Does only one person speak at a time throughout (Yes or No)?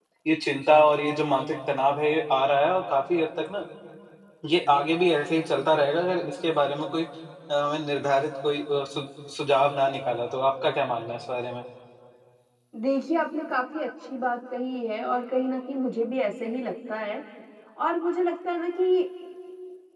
Yes